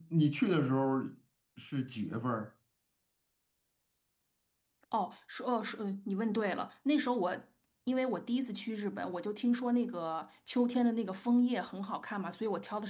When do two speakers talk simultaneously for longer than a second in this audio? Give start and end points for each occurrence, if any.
none

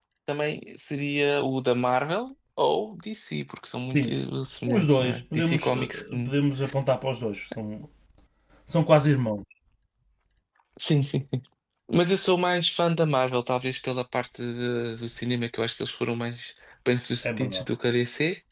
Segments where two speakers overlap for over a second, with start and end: 4.7-6.3

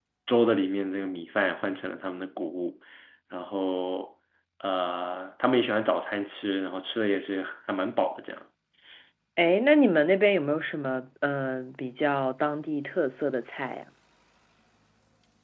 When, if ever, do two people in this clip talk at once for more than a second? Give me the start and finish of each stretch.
none

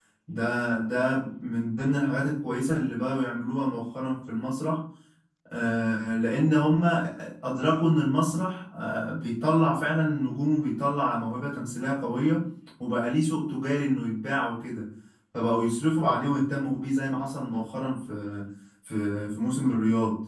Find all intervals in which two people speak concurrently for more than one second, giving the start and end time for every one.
none

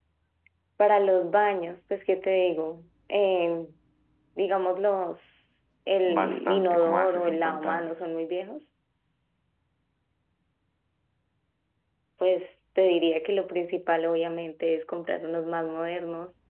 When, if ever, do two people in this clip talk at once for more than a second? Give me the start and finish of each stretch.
6.0-8.0

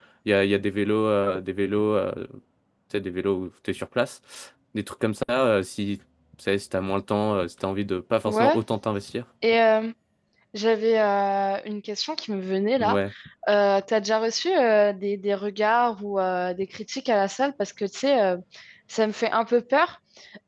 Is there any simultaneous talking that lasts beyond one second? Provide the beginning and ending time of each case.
none

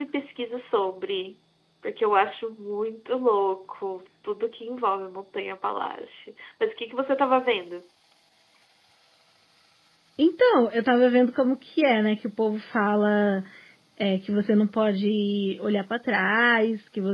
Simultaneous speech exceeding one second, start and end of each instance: none

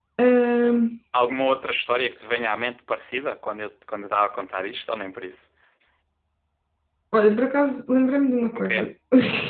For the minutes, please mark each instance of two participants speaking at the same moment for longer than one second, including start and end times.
none

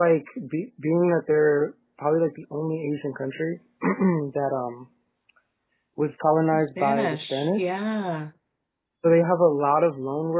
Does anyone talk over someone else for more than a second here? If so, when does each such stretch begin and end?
6.6-7.8

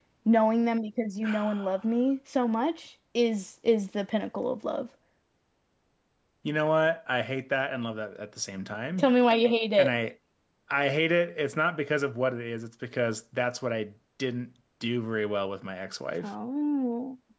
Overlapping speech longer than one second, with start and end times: none

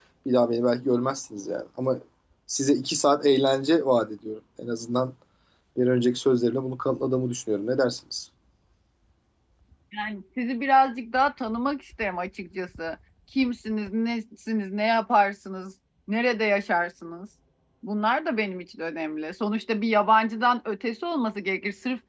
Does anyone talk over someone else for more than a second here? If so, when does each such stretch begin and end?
none

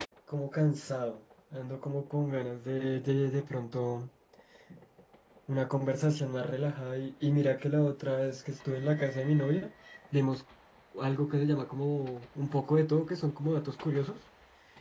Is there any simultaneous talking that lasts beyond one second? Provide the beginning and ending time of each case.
none

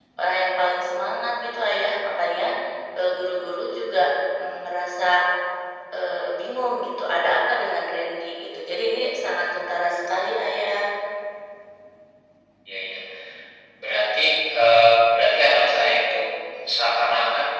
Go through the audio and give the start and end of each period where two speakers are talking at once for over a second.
none

